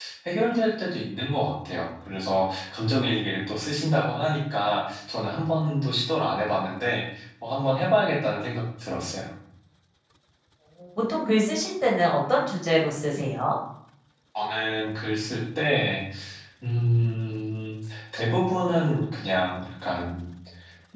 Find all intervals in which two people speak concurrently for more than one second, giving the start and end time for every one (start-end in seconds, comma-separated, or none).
none